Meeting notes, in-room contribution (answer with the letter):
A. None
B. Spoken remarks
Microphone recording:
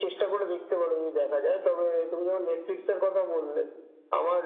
A